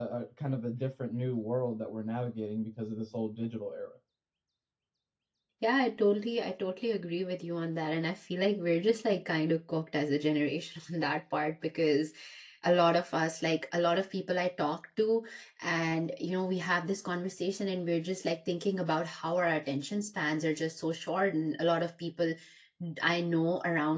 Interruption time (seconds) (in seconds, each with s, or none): none